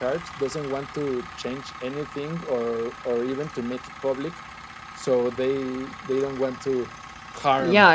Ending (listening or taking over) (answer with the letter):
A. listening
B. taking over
B